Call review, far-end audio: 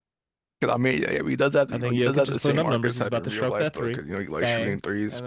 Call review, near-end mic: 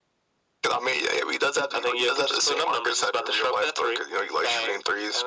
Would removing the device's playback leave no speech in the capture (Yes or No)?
Yes